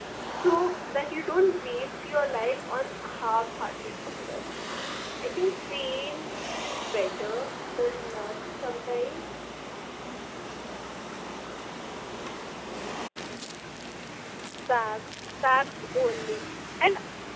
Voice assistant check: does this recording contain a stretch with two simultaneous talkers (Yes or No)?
No